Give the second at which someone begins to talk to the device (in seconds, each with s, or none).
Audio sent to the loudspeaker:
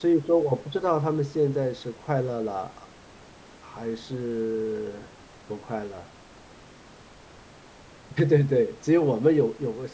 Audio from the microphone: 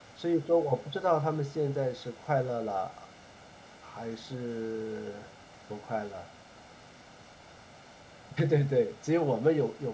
none